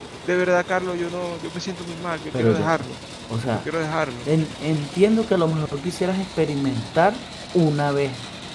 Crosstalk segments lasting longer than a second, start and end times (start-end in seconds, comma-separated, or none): none